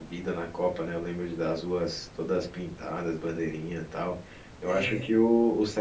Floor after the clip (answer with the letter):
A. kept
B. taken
A